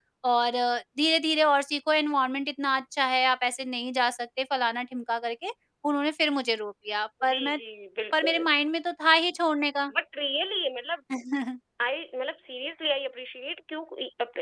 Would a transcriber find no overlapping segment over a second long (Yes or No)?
Yes